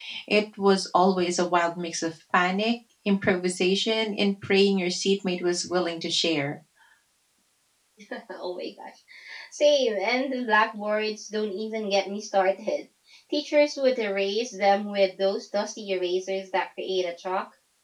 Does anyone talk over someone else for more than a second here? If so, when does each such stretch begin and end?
none

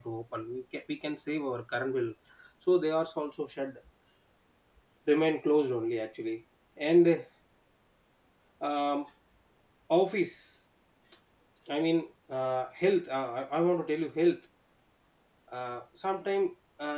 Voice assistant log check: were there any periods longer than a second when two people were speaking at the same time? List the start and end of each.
none

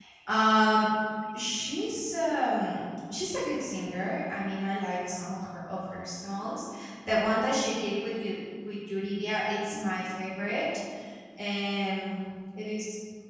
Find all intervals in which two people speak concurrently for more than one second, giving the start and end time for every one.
none

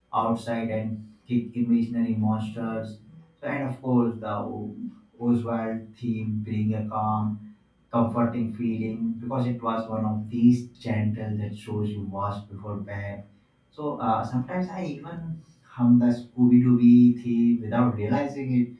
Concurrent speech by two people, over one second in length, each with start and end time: none

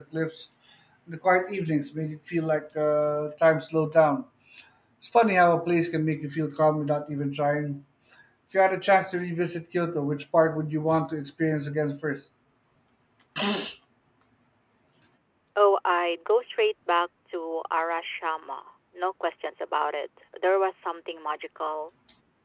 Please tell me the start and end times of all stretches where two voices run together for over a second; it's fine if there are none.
none

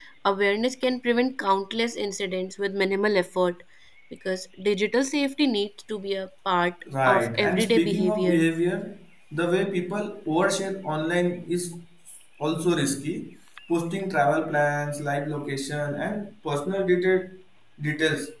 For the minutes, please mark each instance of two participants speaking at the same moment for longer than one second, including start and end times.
7.1-8.4

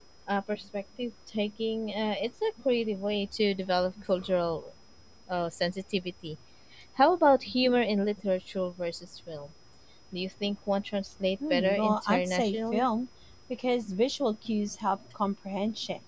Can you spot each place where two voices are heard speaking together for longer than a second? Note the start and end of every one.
11.5-12.9

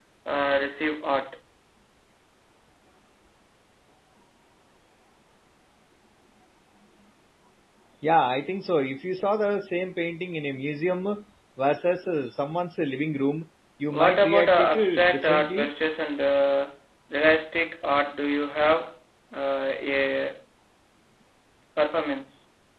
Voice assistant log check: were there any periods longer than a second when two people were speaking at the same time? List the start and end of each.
13.9-15.7

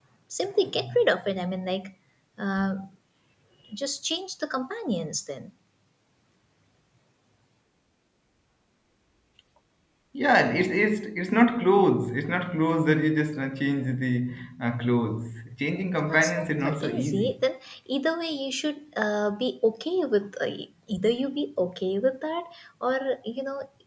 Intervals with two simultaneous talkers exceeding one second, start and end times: 16.0-17.3

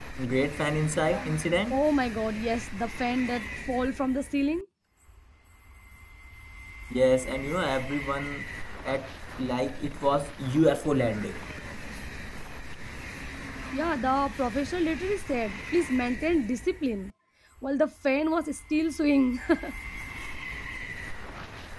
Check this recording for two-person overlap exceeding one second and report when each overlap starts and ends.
none

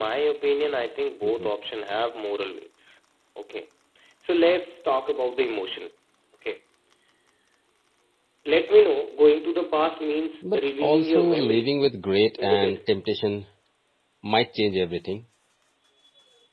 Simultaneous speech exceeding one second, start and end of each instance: 10.4-11.7

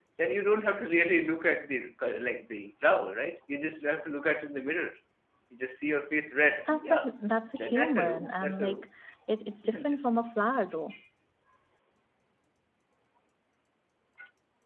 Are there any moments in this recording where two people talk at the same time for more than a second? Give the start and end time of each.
7.6-8.8

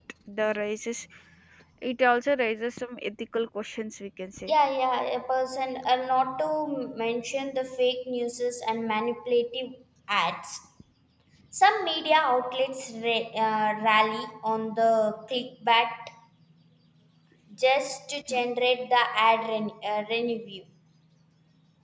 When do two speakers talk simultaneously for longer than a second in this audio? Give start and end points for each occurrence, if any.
none

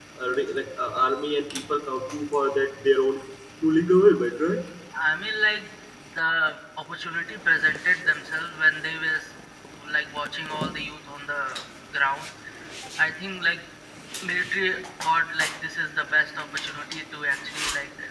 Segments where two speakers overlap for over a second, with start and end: none

